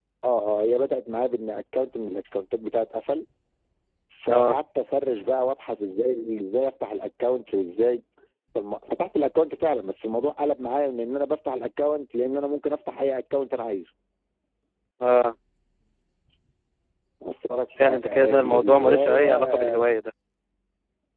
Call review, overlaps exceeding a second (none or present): present